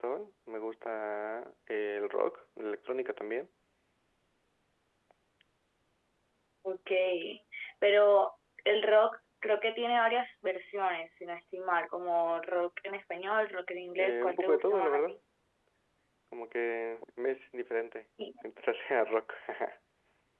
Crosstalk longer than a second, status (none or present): present